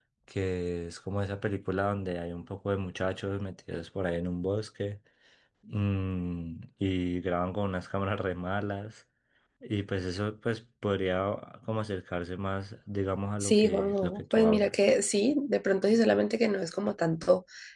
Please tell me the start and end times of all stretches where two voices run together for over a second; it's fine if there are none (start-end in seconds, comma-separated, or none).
13.4-14.8